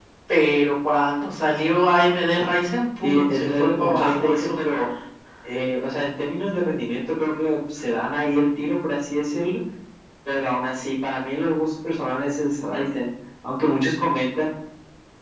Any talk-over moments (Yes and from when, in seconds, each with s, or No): Yes, from 3.0 s